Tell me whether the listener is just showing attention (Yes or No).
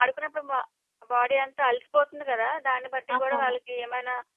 Yes